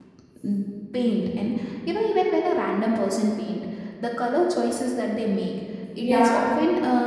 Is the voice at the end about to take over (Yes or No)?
No